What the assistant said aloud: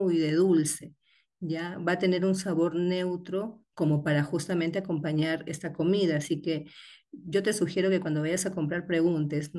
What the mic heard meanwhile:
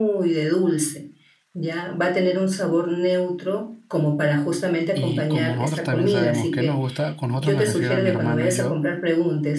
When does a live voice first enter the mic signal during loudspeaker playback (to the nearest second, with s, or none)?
5 s